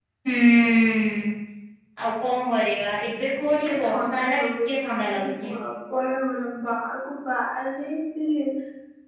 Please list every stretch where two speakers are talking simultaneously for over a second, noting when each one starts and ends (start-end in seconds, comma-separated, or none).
3.7-5.5